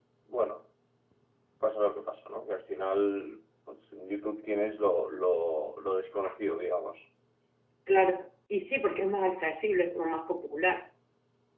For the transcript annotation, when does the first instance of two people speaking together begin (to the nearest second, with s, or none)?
none